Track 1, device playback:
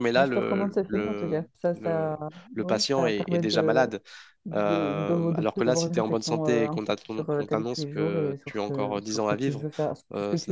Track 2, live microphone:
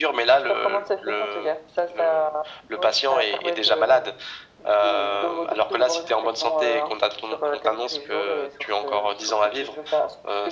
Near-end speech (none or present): none